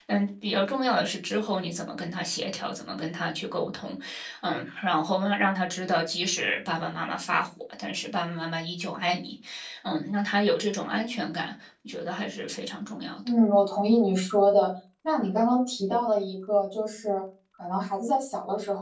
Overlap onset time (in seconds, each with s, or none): none